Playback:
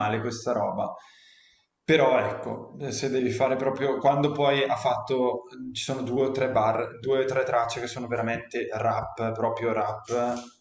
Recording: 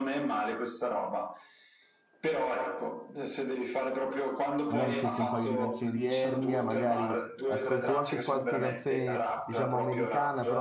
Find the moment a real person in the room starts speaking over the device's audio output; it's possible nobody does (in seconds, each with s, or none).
4.7 s